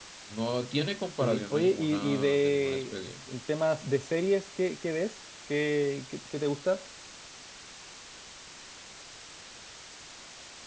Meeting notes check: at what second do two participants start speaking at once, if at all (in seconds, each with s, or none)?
1.2 s